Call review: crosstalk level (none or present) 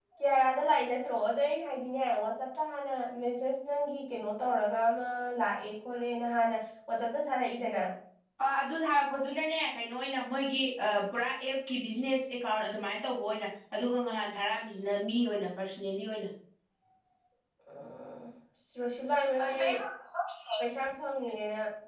none